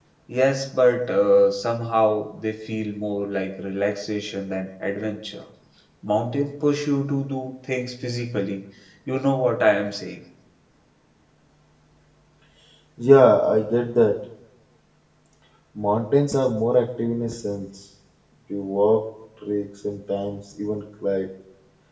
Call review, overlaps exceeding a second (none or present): none